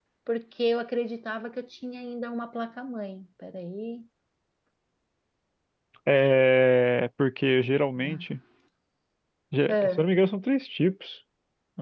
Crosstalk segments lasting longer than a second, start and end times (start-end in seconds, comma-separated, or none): none